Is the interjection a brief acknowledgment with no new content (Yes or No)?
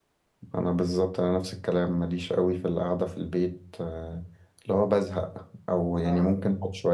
Yes